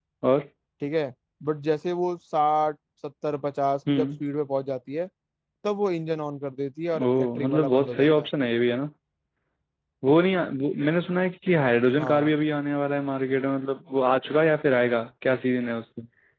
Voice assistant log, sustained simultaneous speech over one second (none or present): present